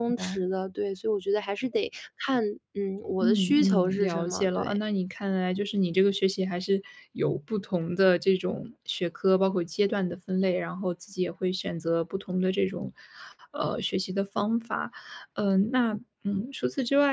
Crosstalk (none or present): present